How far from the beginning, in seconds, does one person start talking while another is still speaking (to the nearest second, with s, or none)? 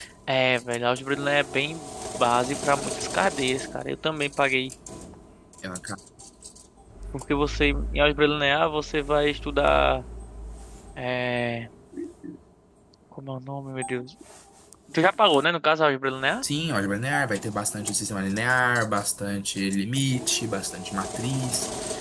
none